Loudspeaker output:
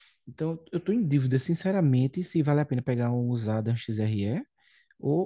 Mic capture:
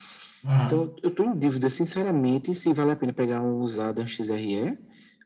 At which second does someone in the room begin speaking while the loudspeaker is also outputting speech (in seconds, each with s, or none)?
0.4 s